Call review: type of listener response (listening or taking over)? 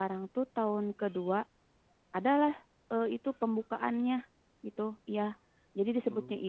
listening